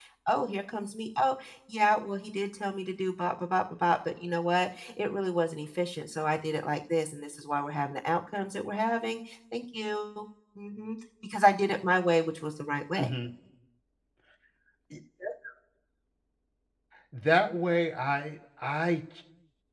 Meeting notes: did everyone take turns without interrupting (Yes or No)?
Yes